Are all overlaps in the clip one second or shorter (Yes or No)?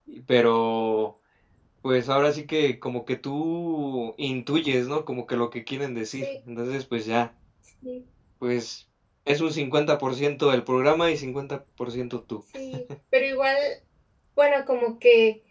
Yes